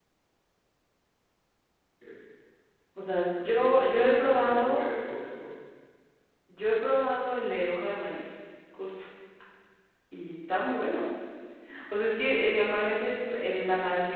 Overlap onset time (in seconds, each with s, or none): 3.4 s